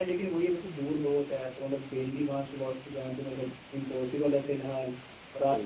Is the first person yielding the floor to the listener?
No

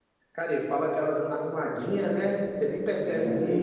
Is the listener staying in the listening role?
No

